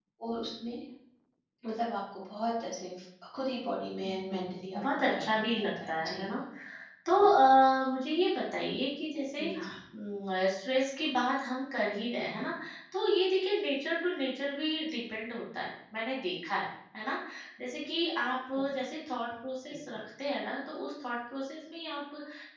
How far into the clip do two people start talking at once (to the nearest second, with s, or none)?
4 s